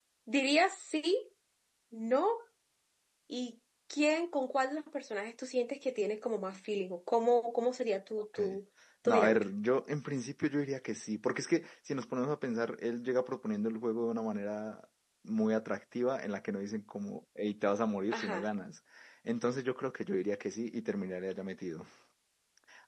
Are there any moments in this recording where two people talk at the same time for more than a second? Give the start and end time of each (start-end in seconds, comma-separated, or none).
none